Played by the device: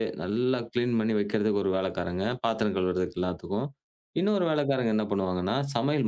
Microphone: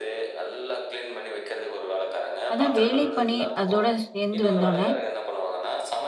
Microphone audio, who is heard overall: both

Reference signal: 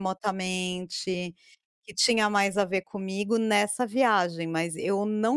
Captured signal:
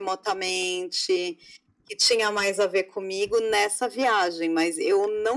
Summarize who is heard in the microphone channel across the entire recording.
echo only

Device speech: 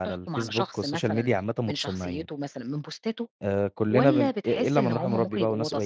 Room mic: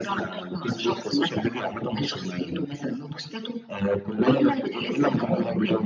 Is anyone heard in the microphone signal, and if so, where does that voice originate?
echo only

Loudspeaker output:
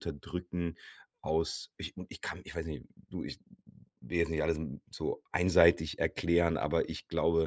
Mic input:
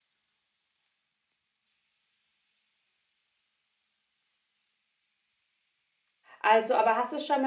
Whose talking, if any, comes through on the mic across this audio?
user only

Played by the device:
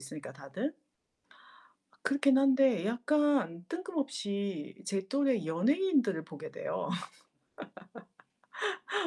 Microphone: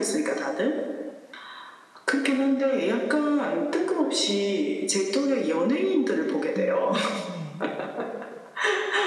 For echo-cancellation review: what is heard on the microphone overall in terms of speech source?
both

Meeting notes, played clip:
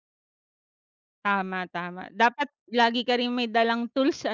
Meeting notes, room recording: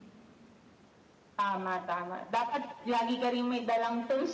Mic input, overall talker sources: echo only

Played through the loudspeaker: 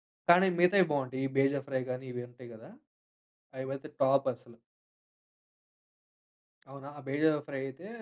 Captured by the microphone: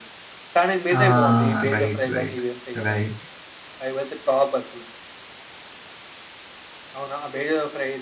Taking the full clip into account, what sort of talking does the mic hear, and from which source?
both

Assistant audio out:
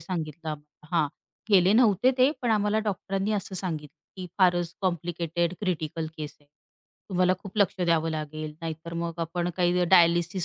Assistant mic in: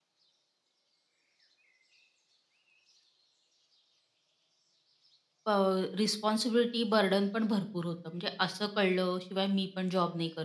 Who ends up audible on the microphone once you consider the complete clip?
user only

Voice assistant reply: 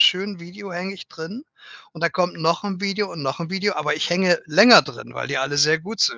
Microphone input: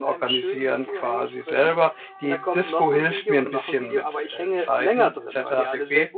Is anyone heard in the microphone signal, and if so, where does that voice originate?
both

